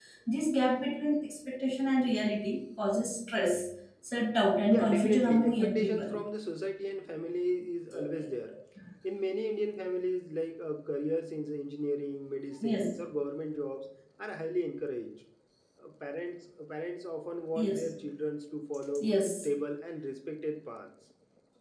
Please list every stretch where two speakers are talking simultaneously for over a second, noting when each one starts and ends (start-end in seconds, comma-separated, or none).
4.7-6.2